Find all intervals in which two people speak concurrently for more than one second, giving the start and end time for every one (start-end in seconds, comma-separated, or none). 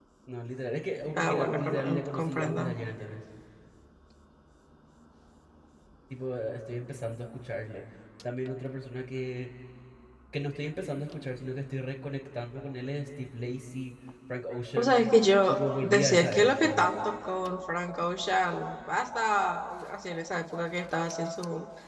1.1-2.7, 15.5-16.9